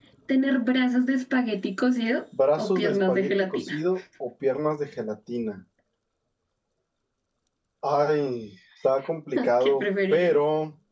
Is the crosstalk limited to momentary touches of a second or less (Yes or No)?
No